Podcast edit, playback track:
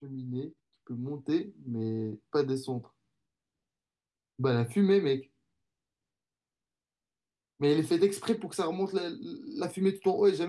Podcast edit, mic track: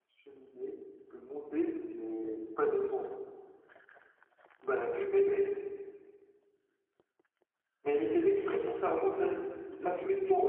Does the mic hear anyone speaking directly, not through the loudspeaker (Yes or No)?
No